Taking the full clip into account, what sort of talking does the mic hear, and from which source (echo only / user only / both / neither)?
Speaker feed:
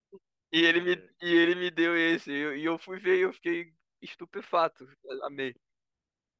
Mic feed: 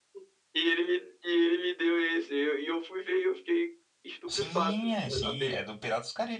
both